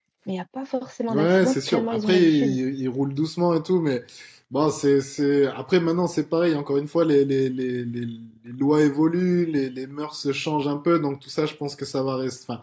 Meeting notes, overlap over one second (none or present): present